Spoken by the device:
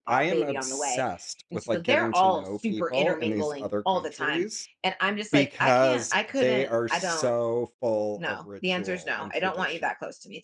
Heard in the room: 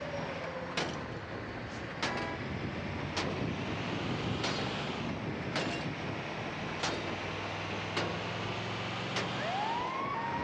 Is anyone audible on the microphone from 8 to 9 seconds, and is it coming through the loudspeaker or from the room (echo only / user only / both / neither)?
neither